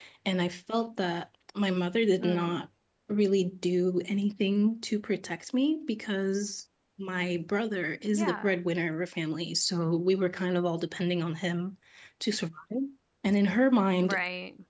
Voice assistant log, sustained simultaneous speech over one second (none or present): none